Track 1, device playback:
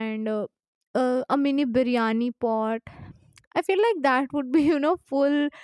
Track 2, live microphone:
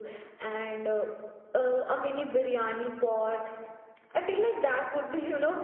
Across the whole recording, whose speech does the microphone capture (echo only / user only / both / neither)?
echo only